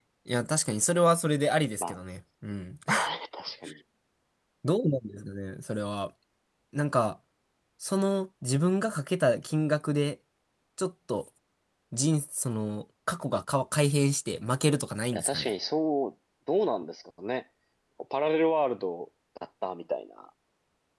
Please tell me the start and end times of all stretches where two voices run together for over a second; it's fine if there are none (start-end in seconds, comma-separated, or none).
none